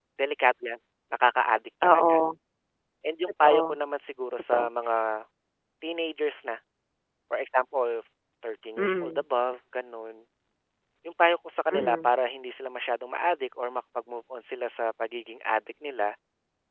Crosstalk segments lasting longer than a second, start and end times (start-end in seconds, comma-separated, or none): none